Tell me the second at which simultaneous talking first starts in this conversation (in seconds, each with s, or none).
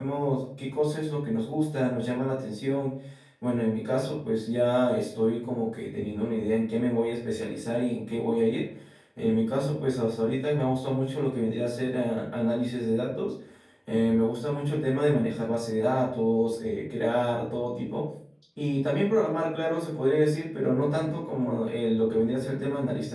none